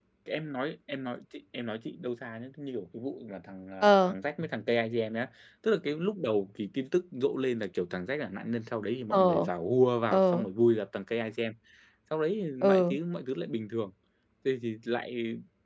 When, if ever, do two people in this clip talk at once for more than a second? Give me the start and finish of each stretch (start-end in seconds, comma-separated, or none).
none